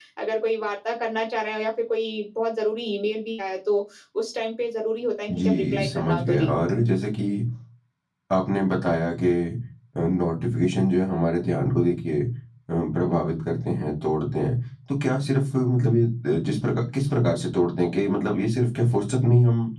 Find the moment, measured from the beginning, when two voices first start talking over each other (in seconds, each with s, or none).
5.3 s